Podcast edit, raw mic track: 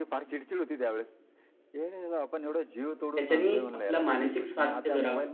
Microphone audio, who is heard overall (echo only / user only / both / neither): both